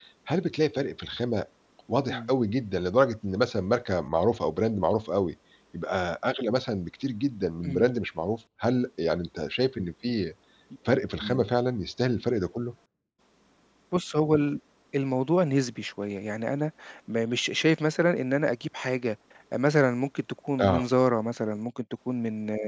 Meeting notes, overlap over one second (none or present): none